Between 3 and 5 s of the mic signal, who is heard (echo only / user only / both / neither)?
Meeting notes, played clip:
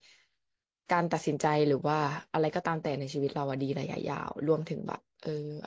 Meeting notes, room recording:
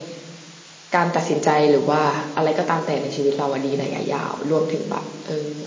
echo only